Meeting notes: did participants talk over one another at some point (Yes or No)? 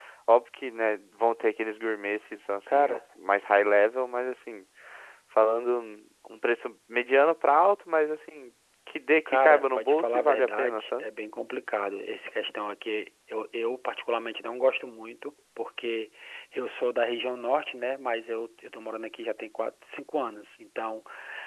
Yes